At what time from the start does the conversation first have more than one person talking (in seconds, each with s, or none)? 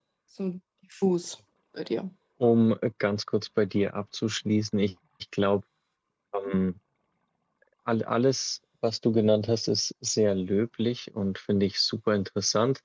none